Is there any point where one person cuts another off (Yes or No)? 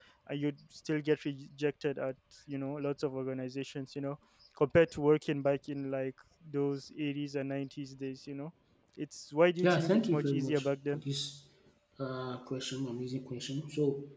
Yes